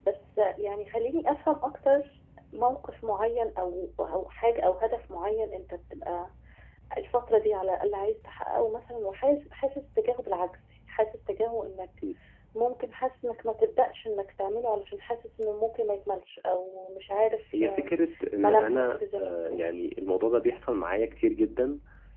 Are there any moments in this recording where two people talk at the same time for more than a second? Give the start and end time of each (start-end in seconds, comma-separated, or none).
18.4-19.7